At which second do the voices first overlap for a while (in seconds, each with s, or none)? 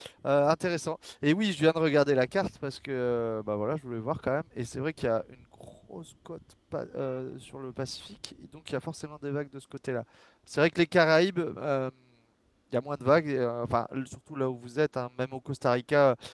none